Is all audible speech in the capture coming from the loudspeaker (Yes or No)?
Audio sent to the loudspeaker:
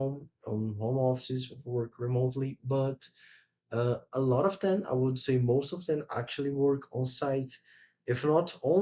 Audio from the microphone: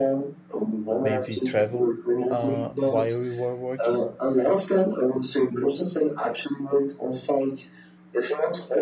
No